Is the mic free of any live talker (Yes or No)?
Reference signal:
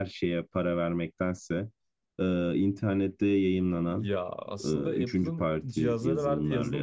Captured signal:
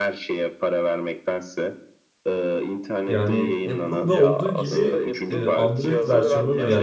No